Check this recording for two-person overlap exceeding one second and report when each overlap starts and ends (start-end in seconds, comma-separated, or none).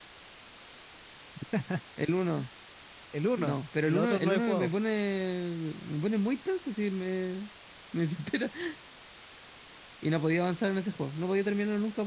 3.4-4.7